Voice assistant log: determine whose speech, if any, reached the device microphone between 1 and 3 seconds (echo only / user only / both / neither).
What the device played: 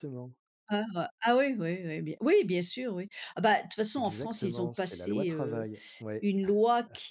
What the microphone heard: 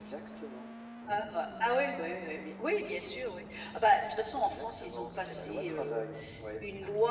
echo only